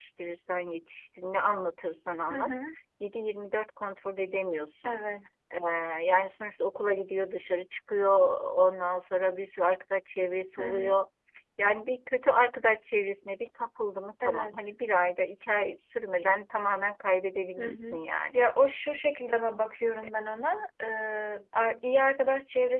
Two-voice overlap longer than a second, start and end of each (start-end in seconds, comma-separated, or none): none